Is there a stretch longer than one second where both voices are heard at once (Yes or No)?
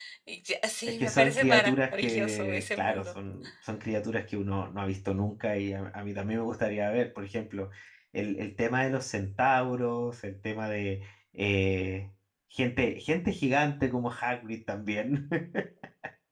Yes